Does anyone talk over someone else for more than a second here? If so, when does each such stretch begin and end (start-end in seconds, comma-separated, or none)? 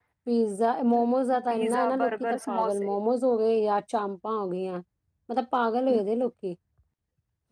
1.5-3.0